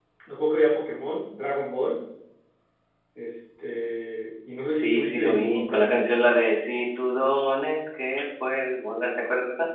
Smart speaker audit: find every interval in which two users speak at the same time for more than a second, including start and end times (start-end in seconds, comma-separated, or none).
4.7-6.0